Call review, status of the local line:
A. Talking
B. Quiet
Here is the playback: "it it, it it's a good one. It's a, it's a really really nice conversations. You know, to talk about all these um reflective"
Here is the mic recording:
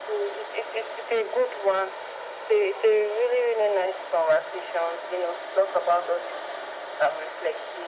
B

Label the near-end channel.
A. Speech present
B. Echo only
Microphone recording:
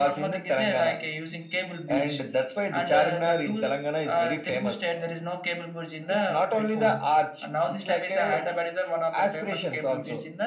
B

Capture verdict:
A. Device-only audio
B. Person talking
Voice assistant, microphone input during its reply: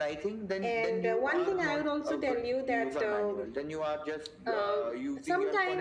B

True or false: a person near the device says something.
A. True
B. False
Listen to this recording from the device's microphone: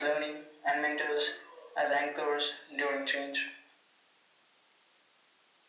B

